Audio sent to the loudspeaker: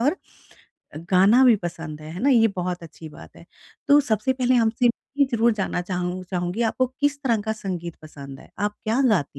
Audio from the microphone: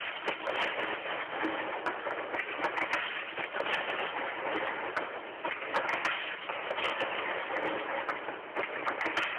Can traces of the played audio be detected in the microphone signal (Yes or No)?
No